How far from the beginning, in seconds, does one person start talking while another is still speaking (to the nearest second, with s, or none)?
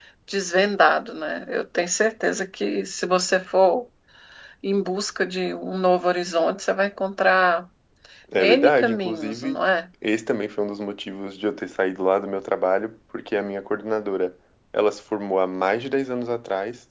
8 s